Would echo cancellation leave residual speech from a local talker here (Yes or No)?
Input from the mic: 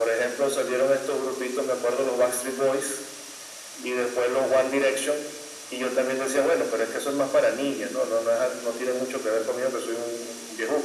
No